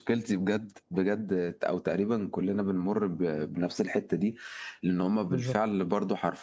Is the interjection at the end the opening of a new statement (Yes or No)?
No